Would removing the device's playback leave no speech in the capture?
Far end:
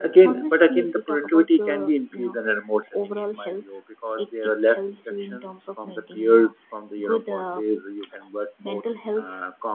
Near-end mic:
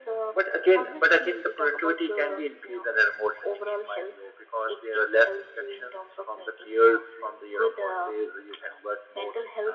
Yes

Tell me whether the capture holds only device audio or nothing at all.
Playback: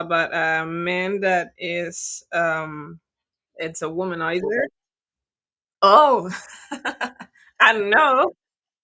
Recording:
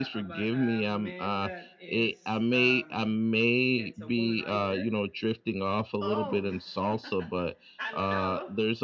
No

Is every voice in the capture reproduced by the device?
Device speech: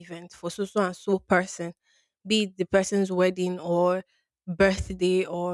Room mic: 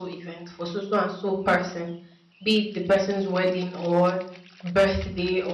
Yes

